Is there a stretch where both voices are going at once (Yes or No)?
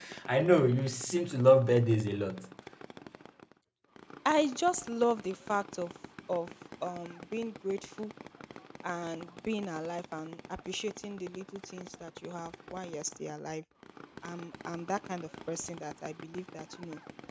No